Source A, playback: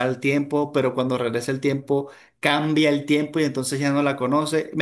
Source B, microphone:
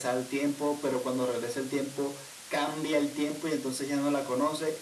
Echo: present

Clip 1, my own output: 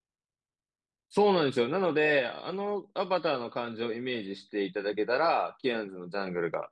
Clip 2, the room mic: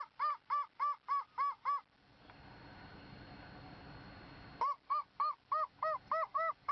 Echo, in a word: none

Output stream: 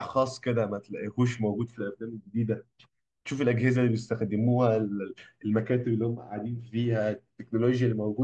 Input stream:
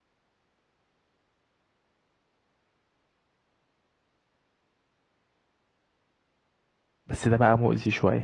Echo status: none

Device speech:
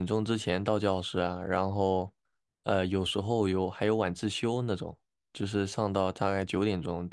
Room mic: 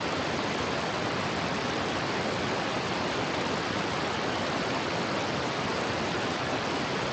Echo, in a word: none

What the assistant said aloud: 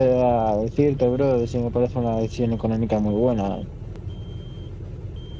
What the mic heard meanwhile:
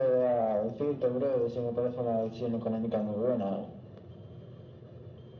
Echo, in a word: present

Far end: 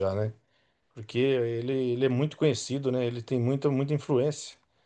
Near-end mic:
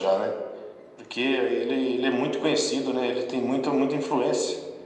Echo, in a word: present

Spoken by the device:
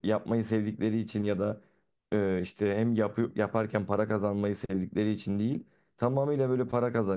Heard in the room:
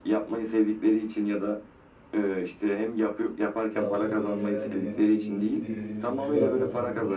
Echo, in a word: present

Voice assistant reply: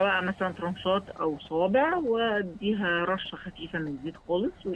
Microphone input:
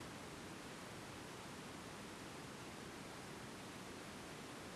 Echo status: none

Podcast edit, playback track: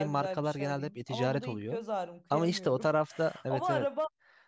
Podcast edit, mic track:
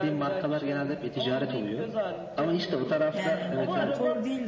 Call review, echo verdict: present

